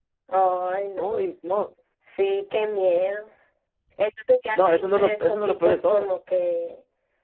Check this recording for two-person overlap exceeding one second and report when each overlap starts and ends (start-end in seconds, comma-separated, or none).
4.6-6.1